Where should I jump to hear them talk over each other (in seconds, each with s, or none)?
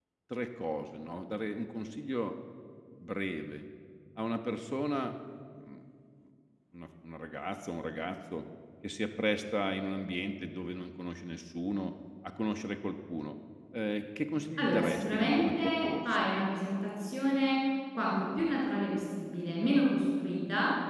14.6 s